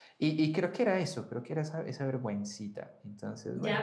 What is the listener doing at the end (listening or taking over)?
taking over